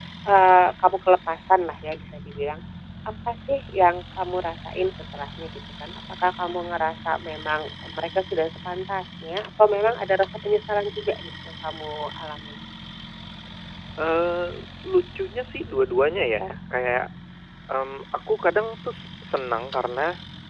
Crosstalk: none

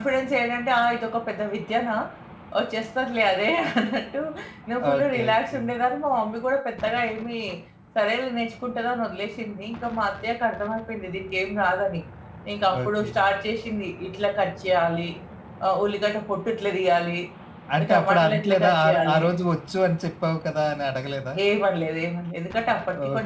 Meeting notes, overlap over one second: present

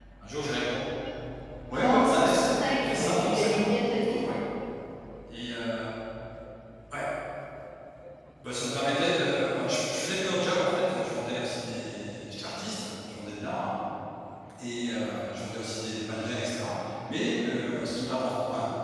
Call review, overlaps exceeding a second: present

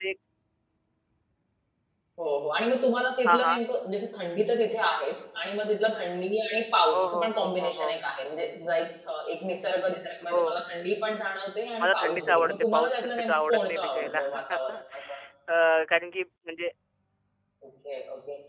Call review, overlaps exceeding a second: present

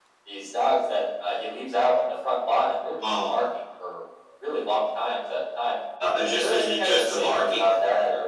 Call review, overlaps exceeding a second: present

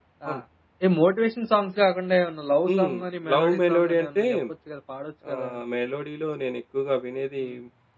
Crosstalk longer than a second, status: present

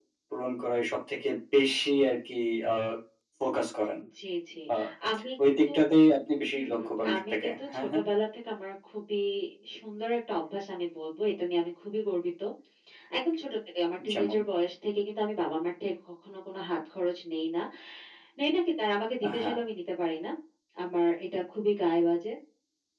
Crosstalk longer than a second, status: present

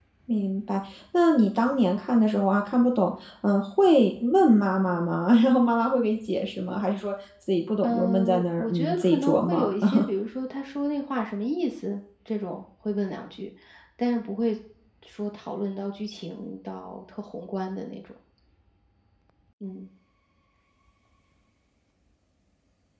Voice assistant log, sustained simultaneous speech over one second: present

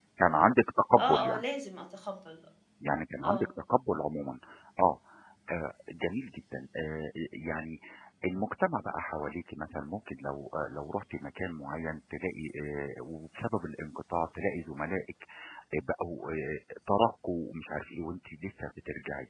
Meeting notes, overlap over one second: none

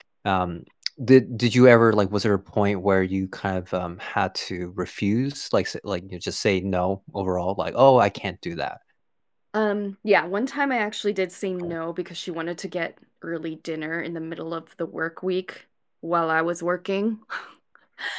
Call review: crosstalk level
none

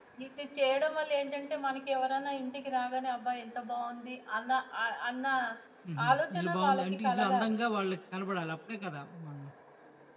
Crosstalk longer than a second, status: present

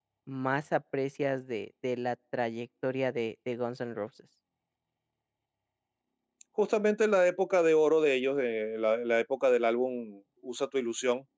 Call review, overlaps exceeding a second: none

